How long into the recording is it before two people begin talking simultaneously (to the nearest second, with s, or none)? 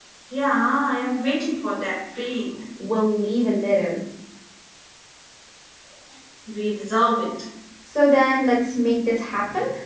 none